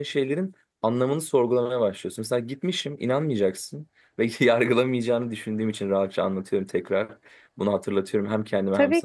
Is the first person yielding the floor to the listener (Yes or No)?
Yes